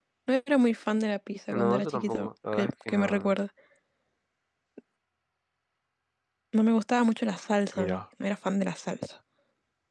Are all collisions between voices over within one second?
No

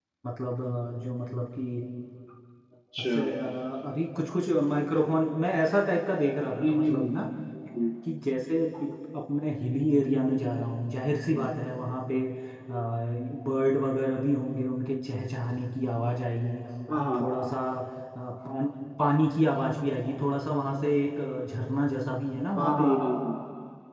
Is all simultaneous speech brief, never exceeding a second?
Yes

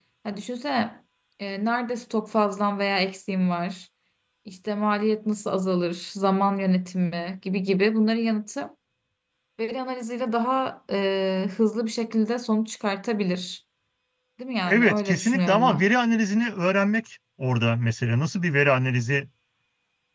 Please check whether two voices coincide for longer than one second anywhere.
Yes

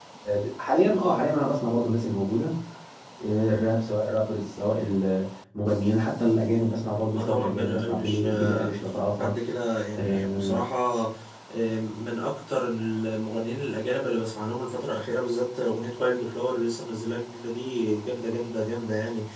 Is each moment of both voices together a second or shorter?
No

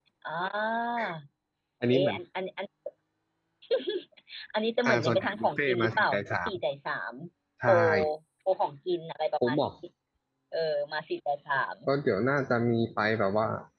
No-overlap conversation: No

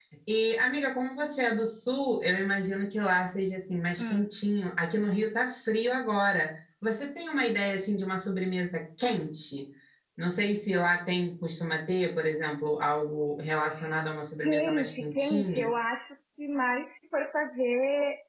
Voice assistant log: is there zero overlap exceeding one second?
No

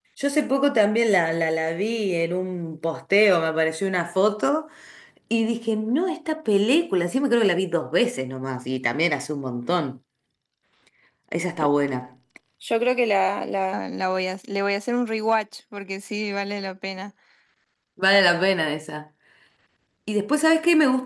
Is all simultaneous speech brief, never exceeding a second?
Yes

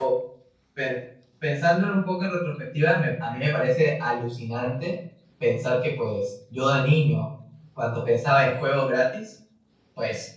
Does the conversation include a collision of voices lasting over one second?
No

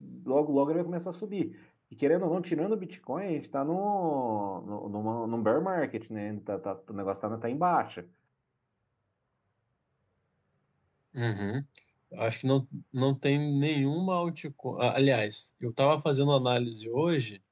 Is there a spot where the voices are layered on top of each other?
No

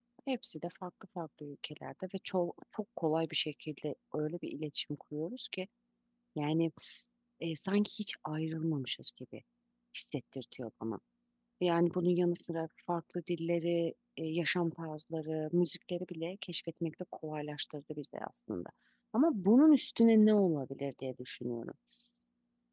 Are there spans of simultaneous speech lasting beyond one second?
No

